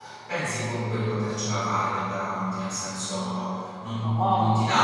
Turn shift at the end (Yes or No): No